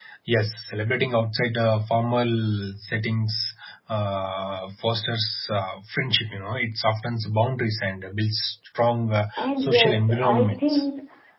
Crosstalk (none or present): present